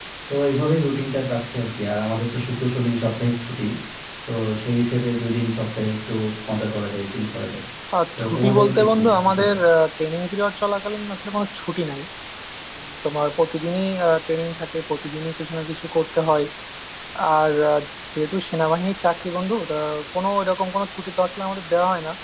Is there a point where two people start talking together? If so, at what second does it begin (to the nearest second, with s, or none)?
8 s